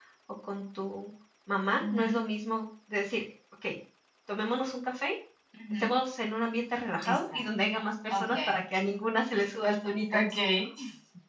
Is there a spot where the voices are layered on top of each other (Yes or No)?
Yes